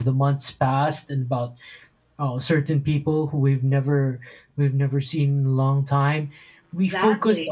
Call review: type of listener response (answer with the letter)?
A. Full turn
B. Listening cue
B